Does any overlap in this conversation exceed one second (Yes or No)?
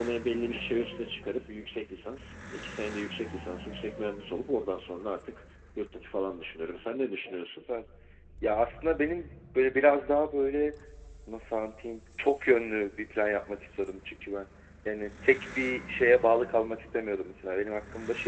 No